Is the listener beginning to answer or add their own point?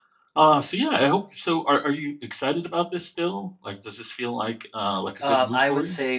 Yes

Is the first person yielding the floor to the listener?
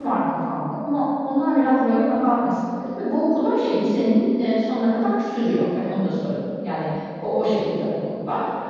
No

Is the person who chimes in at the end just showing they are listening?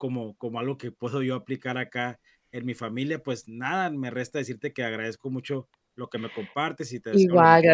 No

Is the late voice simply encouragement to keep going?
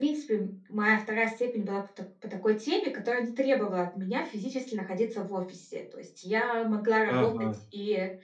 Yes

